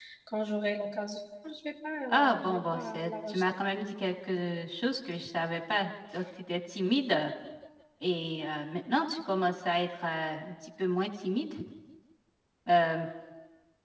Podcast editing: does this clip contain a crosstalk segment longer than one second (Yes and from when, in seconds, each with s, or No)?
Yes, from 2.1 s